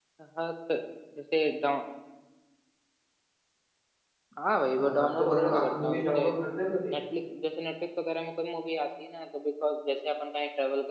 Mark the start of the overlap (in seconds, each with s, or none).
4.8 s